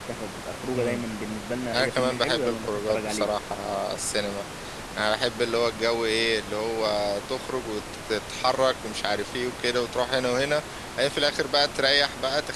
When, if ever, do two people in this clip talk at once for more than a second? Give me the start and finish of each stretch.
1.7-3.3

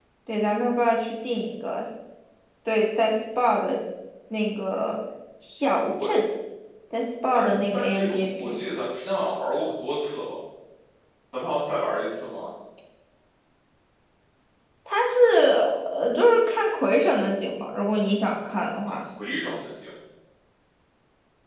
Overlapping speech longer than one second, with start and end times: 7.3-8.6

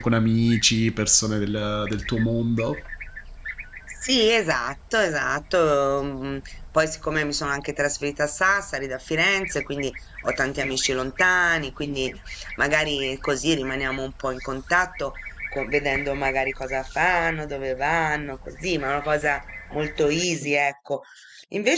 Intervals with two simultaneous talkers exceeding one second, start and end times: none

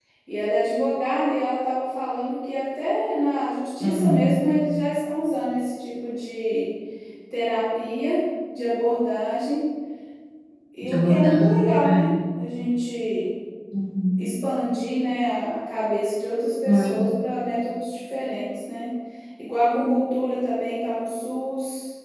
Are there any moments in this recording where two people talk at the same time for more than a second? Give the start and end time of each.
10.8-12.1

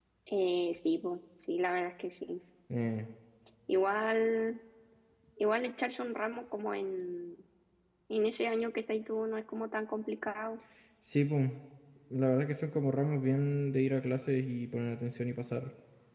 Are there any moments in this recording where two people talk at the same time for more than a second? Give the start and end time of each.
none

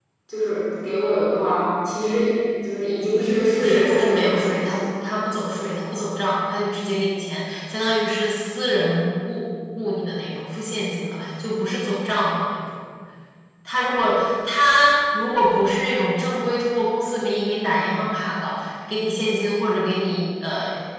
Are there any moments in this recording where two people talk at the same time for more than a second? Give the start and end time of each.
3.5-4.8

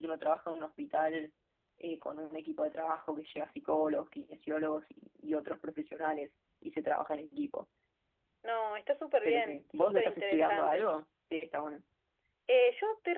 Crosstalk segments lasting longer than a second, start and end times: 9.2-10.9

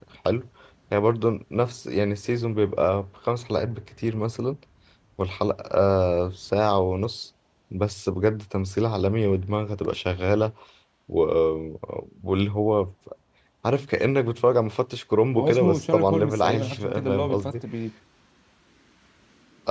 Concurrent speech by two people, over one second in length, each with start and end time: 15.4-17.5

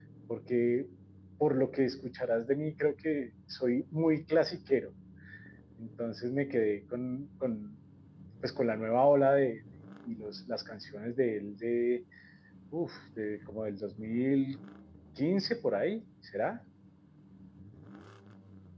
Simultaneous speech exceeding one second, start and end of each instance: none

